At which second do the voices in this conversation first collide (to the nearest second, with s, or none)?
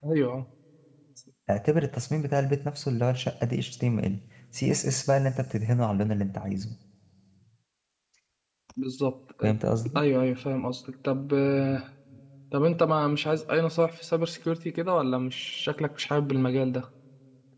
none